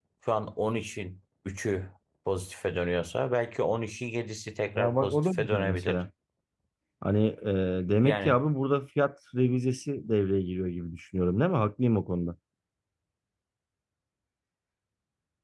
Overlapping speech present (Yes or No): Yes